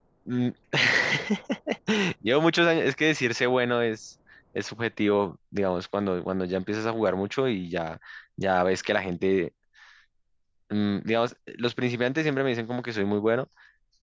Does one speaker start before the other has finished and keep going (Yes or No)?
No